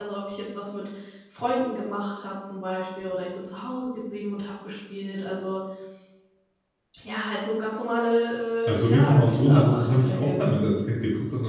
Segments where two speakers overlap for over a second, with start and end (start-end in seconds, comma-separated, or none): 8.7-10.5